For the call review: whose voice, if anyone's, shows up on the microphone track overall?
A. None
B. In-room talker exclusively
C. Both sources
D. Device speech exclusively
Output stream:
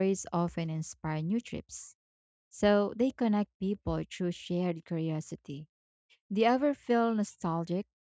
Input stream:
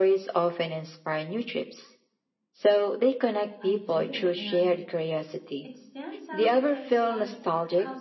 C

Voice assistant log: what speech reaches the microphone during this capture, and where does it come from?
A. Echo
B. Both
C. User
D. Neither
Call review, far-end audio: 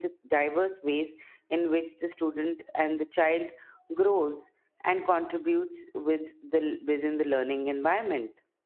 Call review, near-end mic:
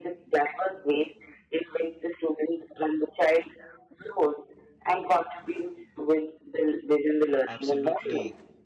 B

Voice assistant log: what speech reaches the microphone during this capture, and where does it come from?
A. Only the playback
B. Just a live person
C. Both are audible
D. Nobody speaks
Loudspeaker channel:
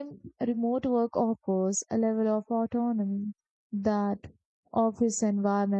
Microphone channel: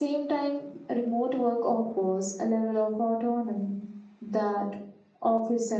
A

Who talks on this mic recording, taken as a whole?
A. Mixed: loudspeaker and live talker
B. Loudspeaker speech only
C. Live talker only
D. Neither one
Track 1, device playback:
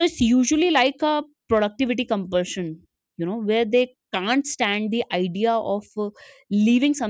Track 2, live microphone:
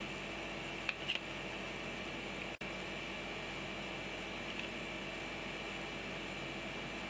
D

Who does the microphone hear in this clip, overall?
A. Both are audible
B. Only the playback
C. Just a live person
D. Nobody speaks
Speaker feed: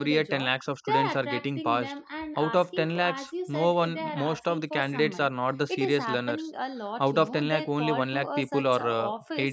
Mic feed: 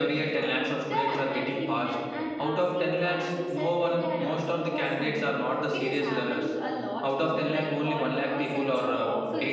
B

